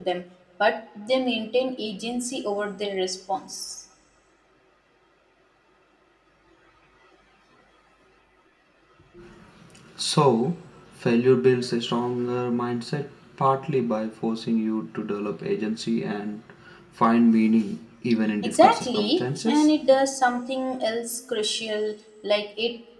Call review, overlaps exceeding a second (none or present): present